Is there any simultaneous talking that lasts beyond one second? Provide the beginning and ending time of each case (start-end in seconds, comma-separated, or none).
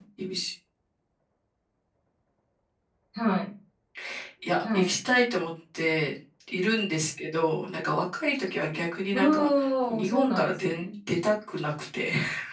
9.1-10.8